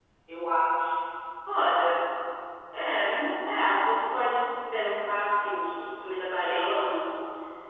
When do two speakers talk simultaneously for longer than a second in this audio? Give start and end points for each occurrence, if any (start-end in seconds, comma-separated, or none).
none